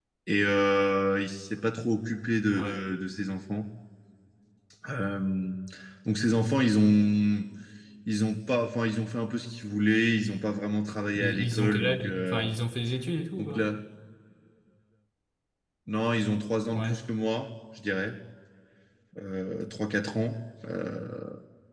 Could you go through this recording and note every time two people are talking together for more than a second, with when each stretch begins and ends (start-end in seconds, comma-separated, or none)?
11.2-12.5